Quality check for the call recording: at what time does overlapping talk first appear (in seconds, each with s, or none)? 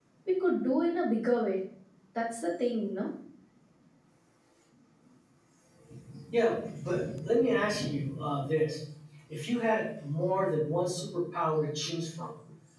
none